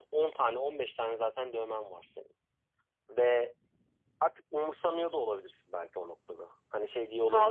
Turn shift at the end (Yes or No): Yes